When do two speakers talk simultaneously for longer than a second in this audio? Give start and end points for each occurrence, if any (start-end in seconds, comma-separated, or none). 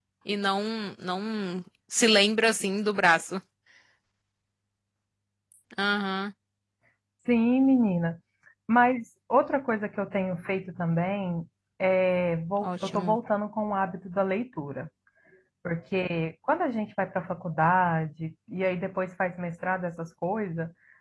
none